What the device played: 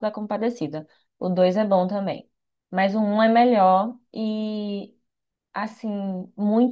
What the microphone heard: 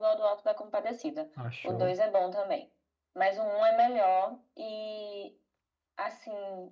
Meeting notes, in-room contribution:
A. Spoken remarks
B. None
A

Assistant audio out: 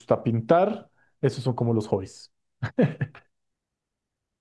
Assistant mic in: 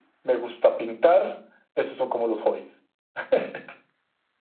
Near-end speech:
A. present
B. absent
B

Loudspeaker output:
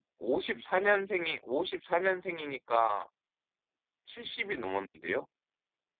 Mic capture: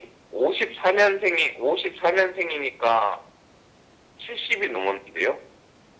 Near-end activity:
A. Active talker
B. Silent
B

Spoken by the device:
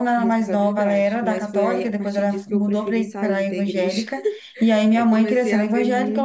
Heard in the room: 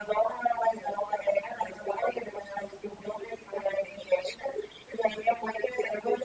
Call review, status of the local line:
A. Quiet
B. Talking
A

